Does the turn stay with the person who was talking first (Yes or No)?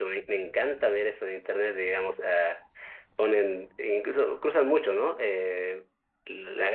Yes